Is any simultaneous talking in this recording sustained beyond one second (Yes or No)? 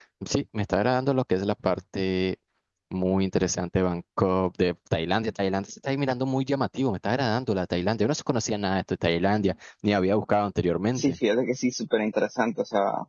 No